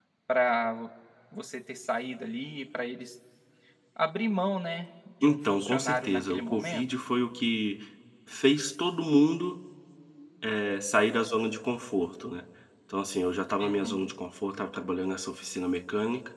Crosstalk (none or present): present